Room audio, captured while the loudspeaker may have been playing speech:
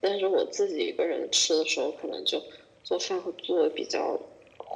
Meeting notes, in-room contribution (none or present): none